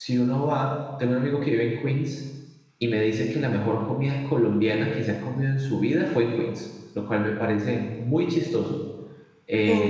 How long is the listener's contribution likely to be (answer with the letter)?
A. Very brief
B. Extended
A